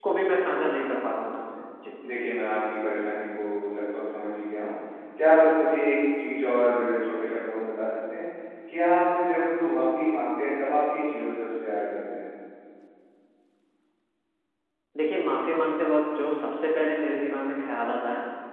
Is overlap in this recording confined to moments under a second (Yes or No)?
Yes